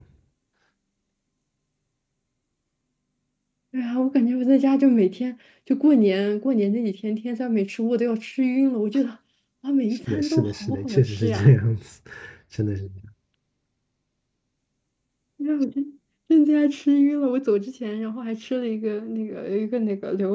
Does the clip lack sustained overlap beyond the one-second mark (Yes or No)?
No